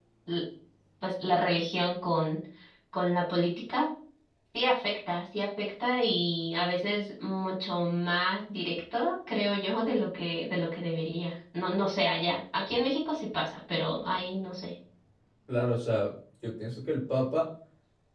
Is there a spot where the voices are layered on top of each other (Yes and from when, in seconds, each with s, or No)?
No